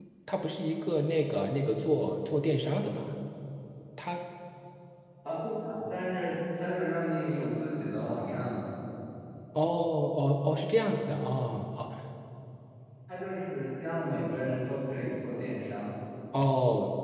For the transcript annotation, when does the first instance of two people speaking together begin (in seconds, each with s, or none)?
none